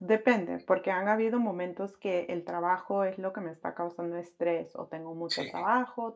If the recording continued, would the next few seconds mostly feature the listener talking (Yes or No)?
No